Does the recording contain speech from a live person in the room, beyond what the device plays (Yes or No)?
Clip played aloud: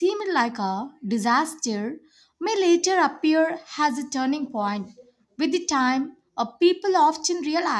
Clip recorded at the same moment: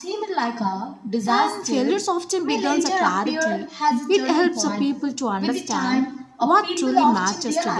Yes